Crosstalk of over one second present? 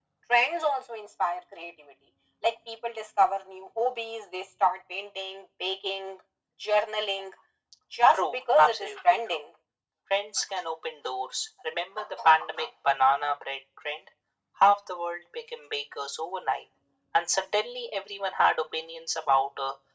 Yes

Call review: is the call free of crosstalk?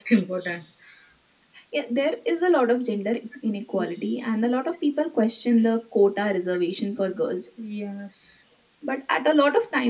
Yes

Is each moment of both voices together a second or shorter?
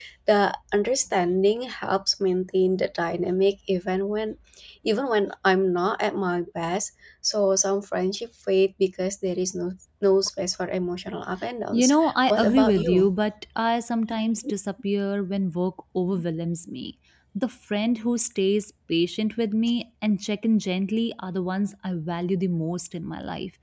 No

